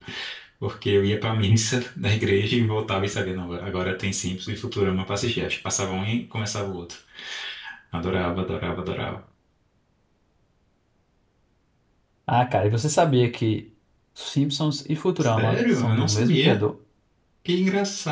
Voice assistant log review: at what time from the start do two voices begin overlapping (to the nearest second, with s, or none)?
15 s